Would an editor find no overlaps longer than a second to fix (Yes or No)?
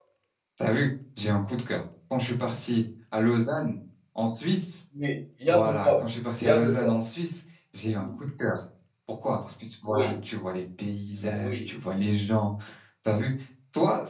Yes